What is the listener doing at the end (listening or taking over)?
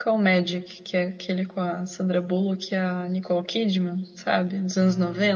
taking over